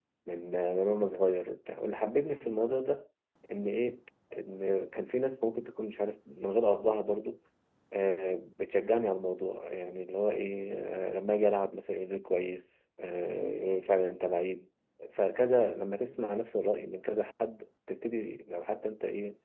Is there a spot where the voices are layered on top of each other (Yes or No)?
No